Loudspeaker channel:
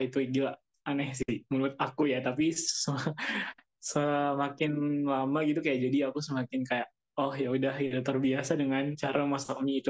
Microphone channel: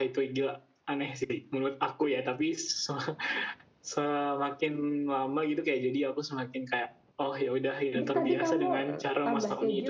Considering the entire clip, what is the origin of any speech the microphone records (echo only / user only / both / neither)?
both